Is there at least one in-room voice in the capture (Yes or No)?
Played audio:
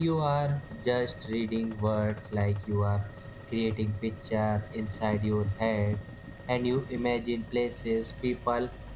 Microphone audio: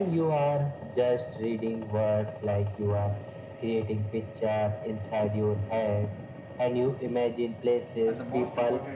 Yes